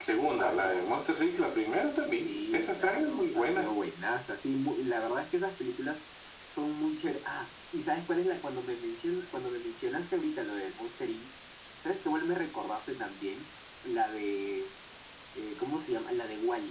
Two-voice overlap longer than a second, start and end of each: 2.2-3.7

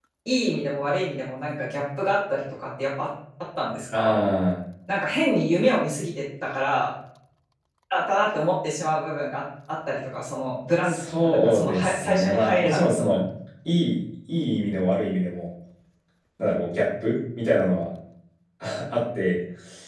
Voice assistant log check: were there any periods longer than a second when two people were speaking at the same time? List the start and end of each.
10.8-13.2

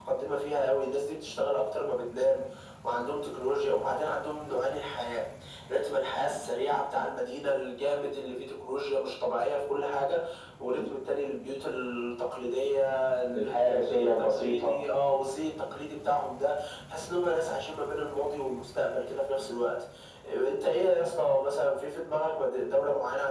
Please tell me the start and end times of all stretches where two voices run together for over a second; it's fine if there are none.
13.3-14.8

